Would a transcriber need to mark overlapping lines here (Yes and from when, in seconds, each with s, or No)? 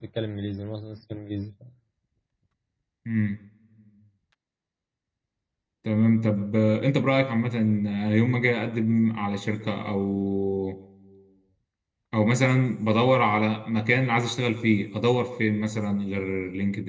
No